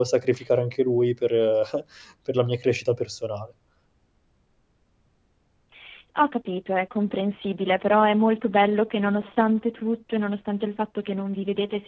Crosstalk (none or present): none